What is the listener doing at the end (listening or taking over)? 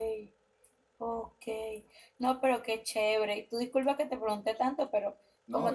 listening